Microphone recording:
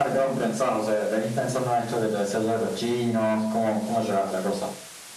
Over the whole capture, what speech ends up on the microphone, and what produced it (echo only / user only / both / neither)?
echo only